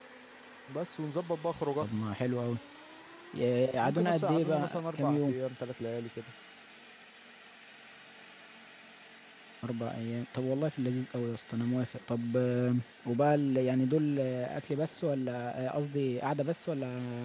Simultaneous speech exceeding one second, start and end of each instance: 3.8-5.3

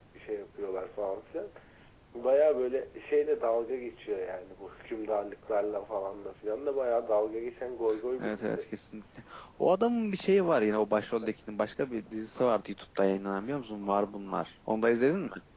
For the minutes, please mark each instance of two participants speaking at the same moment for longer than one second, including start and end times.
none

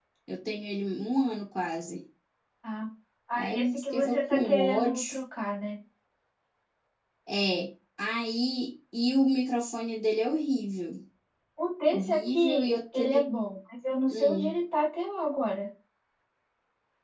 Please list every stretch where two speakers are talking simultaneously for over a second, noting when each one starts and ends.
3.3-5.0, 11.9-13.3

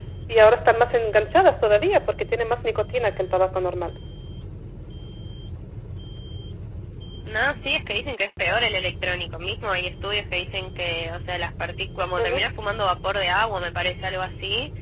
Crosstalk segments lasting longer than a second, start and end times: none

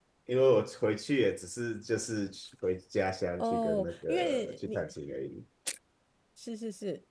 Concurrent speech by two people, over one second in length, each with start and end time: 3.4-4.8

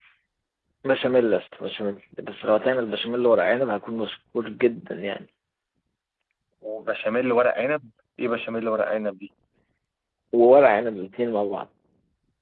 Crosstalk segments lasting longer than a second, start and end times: none

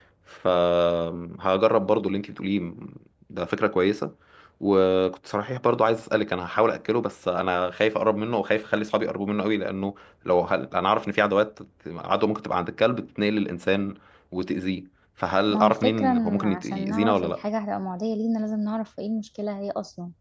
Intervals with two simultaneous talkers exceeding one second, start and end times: 15.5-17.4

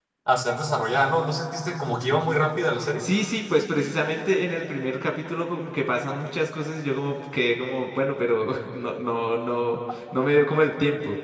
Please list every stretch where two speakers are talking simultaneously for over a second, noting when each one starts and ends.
none

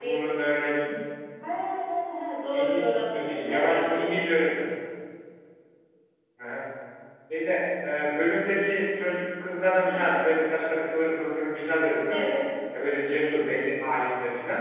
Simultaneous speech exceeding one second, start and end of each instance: 2.5-4.1

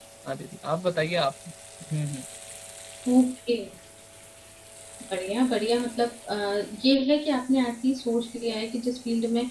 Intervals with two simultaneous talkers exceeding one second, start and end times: none

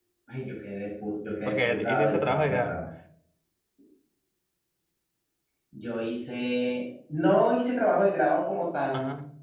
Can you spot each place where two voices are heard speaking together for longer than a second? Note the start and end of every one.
1.4-2.7

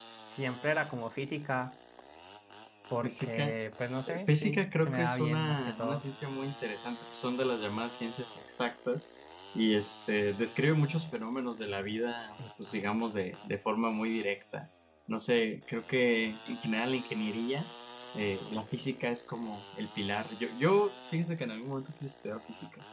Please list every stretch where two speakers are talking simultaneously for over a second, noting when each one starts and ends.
4.1-6.0

